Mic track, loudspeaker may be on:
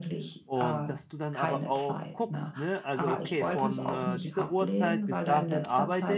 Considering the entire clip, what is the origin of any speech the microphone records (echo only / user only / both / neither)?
both